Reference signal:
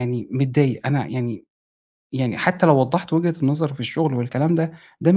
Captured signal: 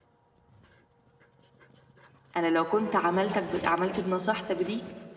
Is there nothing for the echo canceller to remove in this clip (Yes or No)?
Yes